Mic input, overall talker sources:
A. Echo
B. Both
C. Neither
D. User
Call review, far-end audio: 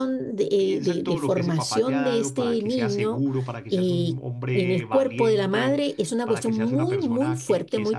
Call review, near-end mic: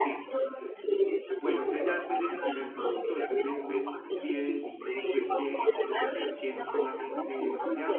B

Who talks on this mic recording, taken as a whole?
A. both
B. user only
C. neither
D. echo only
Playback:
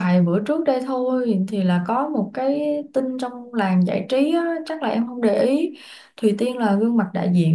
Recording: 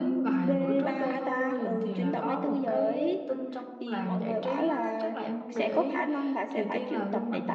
A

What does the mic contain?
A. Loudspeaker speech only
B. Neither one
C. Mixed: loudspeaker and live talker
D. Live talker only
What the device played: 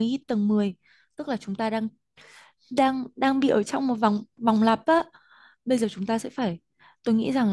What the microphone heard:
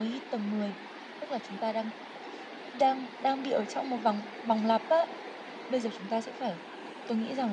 A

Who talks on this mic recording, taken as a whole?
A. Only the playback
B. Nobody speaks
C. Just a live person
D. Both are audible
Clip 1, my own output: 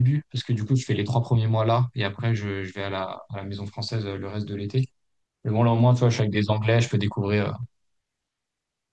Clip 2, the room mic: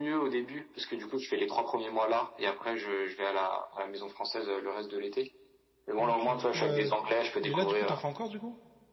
D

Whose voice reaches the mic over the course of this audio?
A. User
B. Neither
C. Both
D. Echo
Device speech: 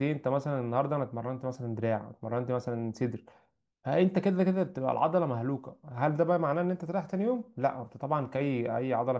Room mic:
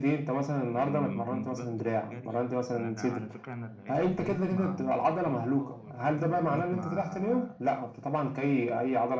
C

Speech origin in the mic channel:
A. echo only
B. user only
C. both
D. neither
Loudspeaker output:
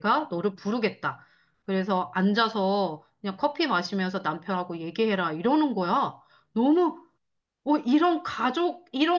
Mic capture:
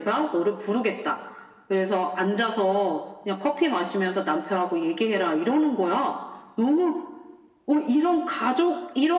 A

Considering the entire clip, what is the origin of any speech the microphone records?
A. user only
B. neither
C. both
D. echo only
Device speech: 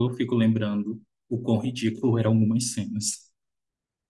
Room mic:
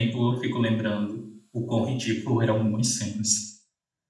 D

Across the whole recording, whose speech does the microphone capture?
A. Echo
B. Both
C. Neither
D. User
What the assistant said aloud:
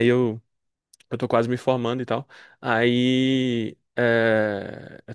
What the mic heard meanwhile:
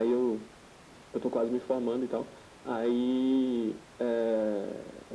A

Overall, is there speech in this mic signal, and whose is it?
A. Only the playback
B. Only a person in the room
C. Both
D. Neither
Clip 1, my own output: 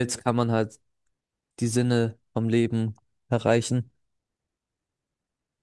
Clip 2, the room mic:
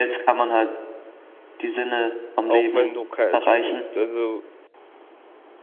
C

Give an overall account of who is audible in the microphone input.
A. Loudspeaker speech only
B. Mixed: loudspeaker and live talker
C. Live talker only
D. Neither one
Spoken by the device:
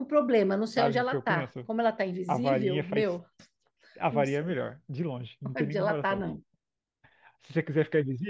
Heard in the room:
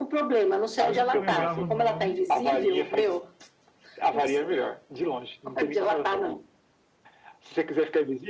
B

